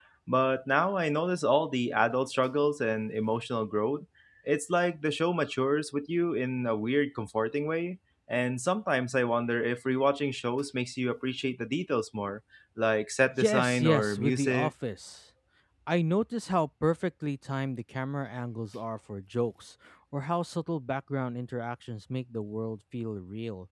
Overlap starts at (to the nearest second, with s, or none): 13 s